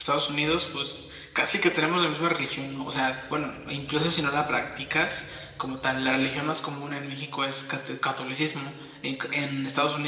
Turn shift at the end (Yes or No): No